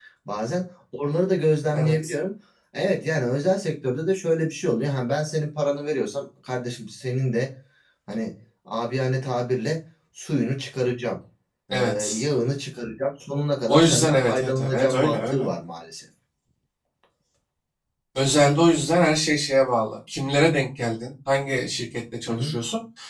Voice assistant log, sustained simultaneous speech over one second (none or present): present